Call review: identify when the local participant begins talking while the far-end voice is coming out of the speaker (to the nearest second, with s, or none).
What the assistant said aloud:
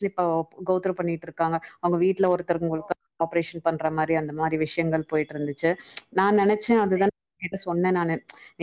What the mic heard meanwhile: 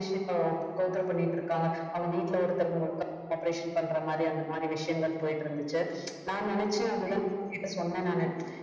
none